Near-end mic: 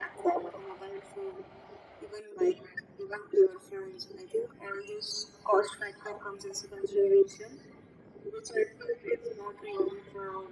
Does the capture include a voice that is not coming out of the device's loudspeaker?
No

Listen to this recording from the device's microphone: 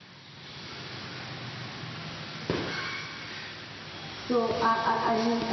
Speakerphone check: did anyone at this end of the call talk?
Yes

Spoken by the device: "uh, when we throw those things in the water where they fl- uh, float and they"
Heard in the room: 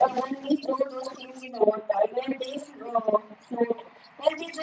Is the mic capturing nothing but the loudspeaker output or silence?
Yes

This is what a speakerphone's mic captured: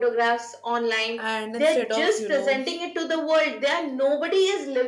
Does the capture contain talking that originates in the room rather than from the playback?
Yes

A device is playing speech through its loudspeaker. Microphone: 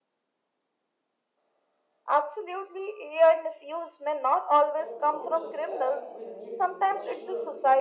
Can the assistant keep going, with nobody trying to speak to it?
No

